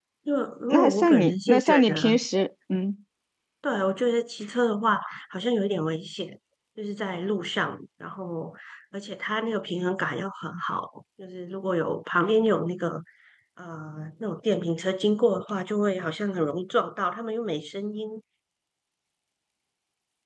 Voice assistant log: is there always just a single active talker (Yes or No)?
No